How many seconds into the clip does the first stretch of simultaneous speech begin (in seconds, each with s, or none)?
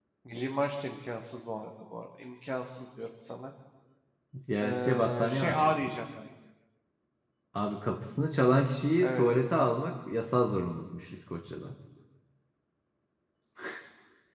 4.6 s